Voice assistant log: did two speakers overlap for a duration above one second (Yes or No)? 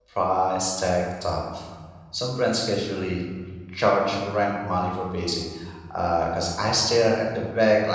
No